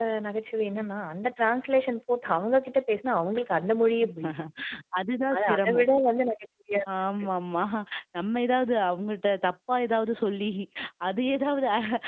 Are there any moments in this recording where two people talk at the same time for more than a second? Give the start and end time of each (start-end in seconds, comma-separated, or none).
none